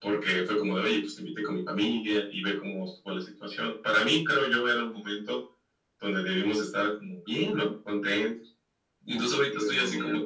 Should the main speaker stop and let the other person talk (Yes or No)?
No